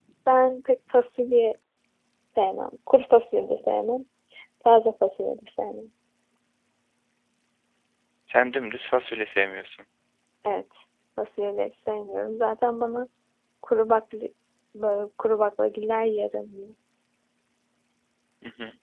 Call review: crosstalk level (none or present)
none